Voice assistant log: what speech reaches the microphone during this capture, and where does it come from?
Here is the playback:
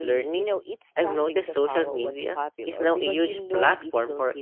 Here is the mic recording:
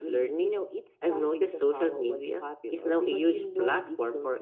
echo only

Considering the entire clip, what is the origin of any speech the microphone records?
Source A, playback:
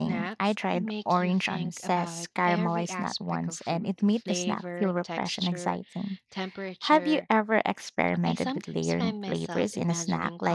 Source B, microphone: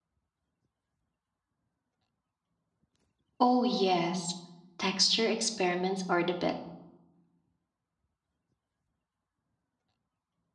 user only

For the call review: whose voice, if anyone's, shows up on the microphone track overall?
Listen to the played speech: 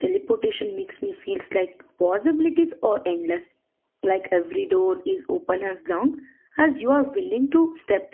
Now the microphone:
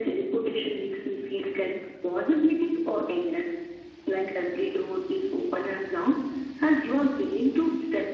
echo only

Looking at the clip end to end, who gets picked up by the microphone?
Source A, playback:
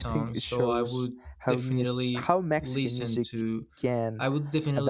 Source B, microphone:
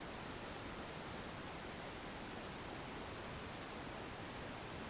neither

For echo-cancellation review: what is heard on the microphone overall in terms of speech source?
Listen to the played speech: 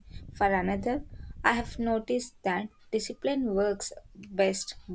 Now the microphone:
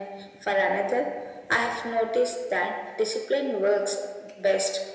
echo only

